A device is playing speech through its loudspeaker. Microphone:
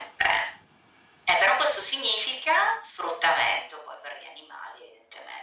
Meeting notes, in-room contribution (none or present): none